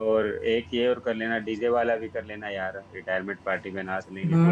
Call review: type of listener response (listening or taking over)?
taking over